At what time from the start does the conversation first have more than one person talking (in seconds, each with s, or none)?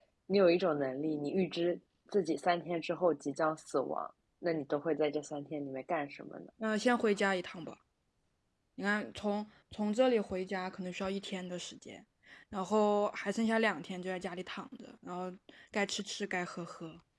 none